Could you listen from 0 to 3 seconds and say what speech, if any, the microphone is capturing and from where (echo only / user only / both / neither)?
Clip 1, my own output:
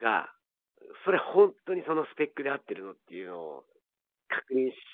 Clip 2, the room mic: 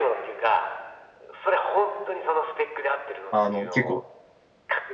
echo only